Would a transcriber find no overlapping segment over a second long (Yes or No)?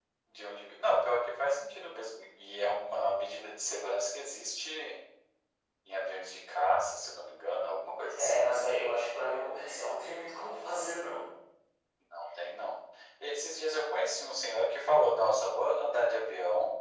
Yes